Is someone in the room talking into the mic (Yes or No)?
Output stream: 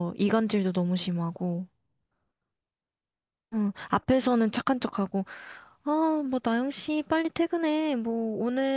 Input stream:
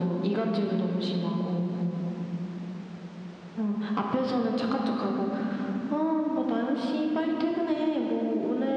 No